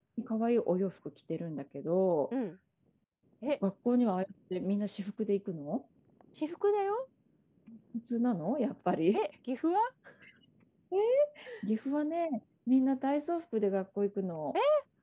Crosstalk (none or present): none